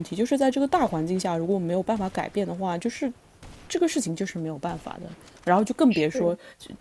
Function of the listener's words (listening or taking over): listening